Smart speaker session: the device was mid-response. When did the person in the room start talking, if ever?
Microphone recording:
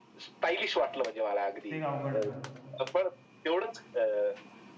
1.7 s

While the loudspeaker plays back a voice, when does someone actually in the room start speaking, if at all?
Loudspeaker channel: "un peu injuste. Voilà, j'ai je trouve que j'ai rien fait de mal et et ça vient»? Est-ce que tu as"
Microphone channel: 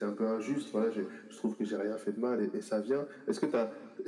none

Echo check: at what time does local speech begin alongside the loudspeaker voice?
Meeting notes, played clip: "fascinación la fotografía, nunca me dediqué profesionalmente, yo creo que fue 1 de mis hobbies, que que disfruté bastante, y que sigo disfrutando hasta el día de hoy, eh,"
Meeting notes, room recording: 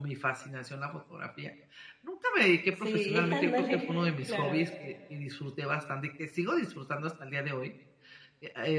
2.7 s

